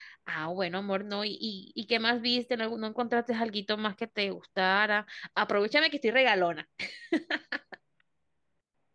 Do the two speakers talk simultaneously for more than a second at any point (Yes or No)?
No